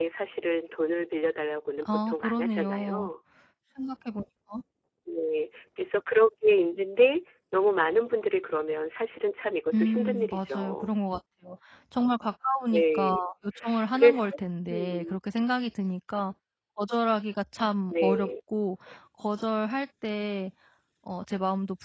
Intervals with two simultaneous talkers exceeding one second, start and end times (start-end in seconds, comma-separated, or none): 1.8-3.1, 9.7-10.9